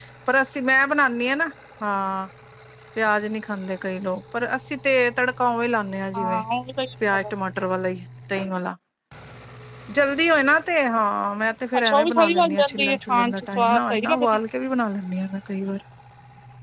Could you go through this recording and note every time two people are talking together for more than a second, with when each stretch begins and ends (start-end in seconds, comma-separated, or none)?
11.8-14.4